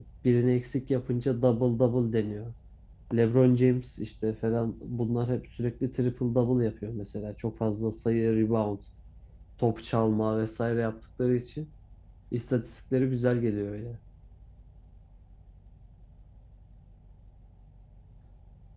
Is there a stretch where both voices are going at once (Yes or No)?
No